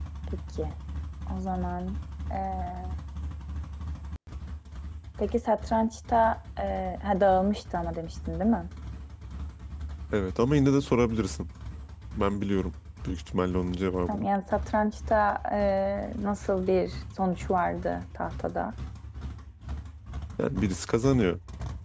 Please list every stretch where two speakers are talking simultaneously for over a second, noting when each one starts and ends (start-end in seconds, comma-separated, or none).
none